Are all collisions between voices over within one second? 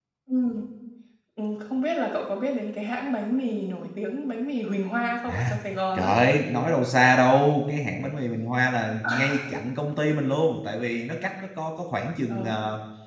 Yes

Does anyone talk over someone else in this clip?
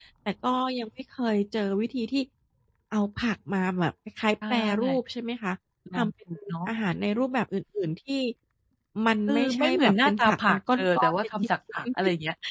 Yes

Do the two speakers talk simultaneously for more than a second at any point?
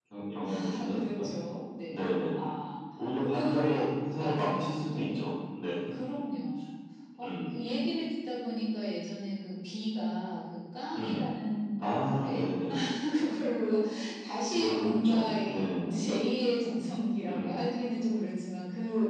Yes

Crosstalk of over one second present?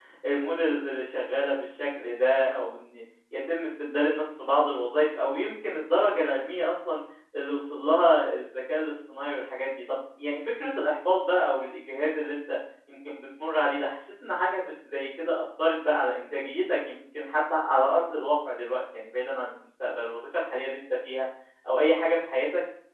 No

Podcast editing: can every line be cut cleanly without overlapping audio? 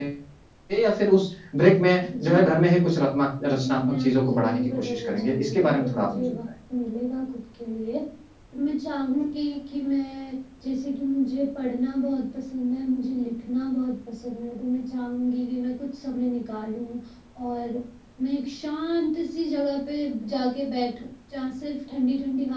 No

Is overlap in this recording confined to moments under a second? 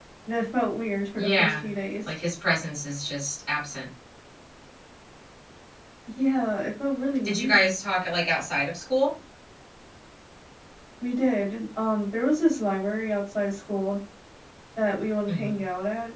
Yes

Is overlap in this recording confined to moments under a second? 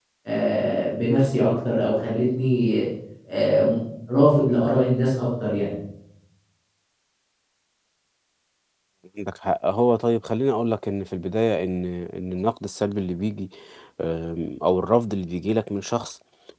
Yes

